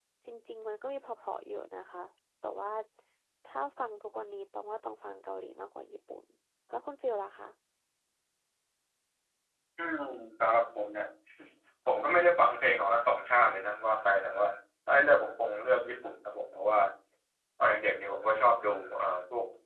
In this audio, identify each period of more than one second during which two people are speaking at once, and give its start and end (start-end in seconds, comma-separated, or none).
none